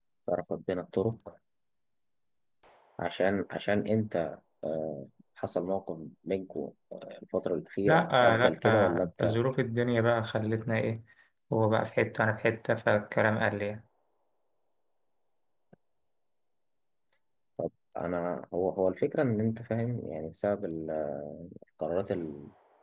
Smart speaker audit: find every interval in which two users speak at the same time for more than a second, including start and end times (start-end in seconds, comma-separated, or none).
7.8-9.4